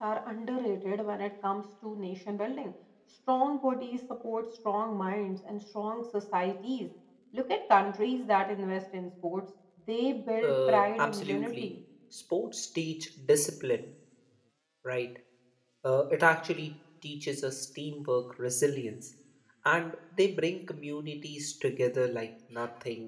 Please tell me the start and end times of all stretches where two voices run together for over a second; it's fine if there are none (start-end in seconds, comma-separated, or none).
10.4-11.7